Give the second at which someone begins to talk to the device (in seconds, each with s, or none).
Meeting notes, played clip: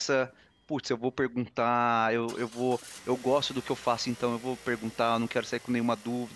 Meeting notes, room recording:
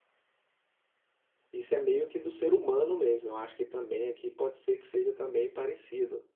1.5 s